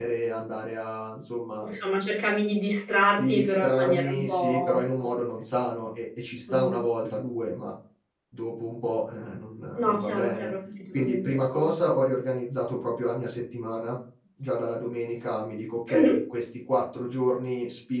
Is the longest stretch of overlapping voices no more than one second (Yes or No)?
No